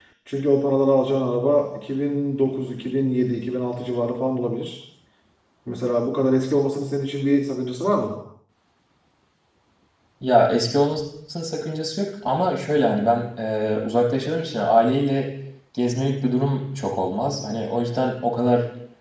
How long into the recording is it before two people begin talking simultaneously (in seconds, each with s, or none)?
none